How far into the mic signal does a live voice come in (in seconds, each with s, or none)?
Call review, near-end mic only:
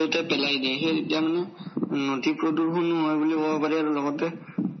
none